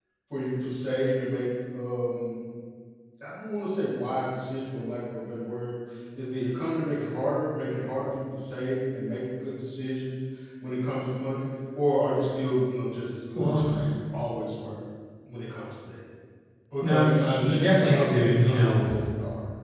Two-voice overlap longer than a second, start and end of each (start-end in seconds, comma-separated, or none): 16.8-18.8